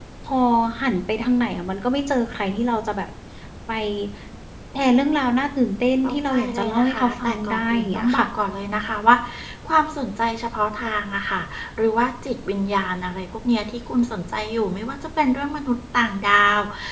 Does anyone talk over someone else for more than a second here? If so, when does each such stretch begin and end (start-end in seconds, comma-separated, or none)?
6.0-8.3